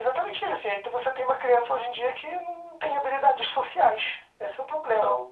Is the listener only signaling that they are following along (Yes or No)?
Yes